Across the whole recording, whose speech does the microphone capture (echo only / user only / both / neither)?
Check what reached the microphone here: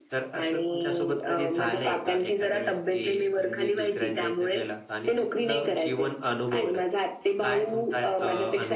echo only